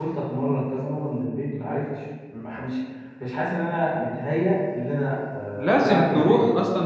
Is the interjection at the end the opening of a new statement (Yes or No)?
Yes